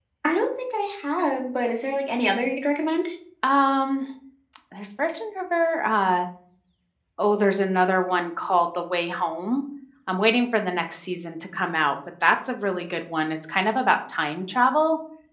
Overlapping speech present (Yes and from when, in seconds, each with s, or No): No